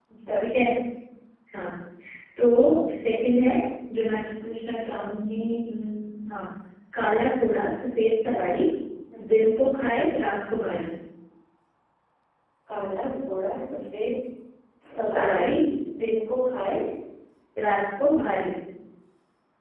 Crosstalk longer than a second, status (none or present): none